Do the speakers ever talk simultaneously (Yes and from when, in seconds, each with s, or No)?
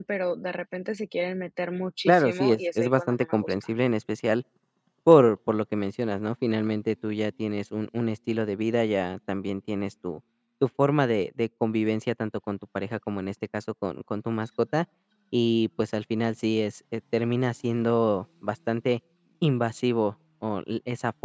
Yes, from 2.1 s